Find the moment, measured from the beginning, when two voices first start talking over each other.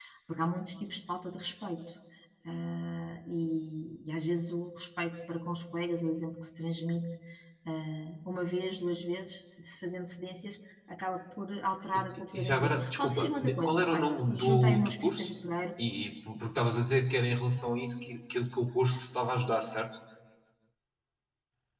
12 s

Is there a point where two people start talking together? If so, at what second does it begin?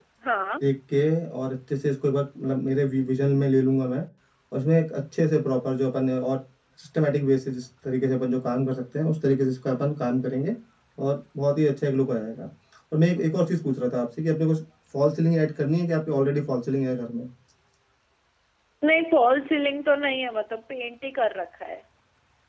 none

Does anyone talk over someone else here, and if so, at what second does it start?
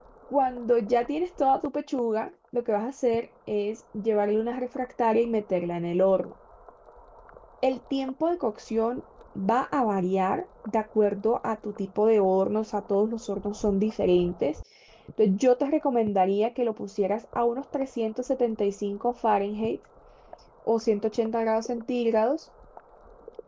none

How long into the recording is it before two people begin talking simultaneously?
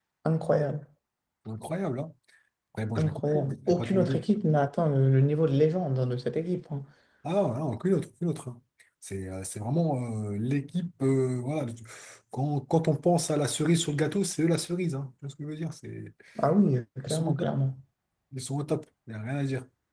3 s

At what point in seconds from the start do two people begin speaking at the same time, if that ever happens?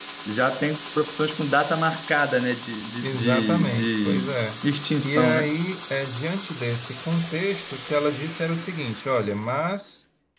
3 s

